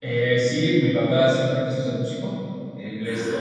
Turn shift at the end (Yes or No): No